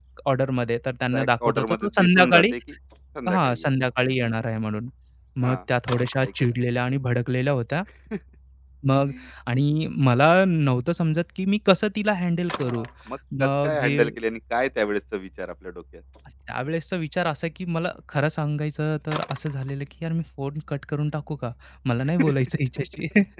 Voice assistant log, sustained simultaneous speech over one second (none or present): present